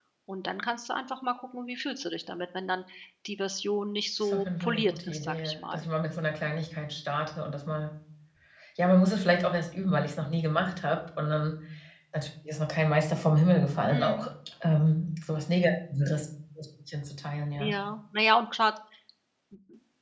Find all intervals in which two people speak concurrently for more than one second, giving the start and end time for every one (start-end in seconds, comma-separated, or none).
4.2-5.8